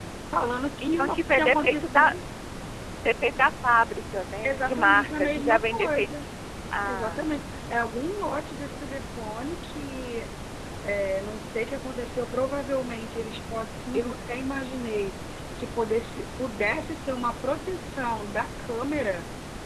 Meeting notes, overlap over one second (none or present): present